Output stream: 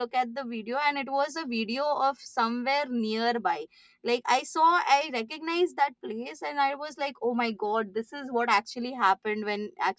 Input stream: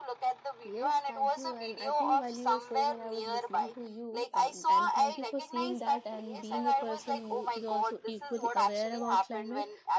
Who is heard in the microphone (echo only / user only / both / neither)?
both